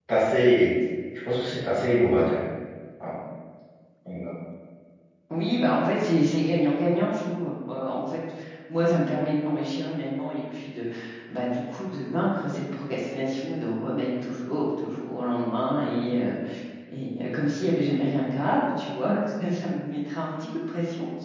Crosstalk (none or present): none